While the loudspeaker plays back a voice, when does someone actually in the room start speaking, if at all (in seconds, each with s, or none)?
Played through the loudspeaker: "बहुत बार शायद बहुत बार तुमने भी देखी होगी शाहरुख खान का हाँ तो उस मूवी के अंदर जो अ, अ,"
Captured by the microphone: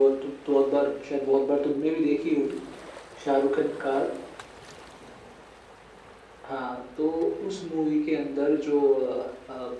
none